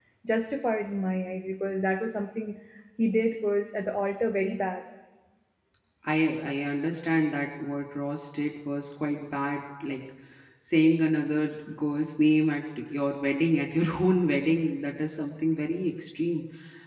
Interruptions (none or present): none